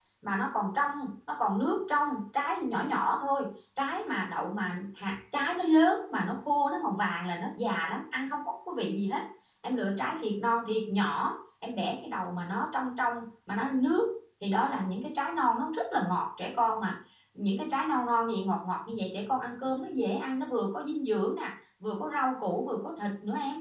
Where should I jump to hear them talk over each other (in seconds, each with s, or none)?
none